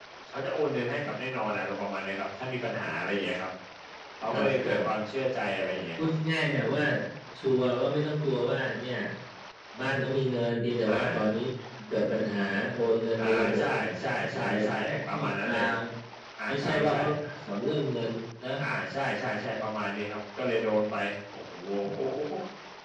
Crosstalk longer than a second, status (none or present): present